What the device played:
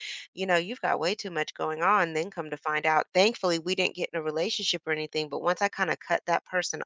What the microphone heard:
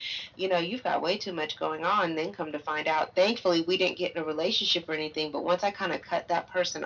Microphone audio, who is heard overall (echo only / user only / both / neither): echo only